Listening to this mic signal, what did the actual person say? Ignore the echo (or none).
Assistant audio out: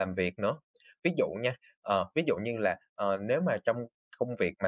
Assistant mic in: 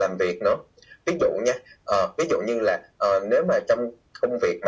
none